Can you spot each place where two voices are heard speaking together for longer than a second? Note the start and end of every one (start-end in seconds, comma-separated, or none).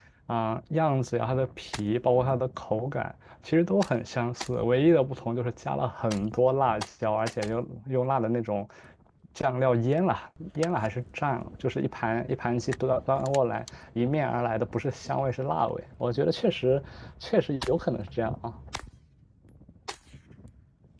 none